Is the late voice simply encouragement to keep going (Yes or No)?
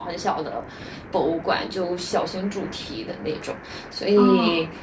Yes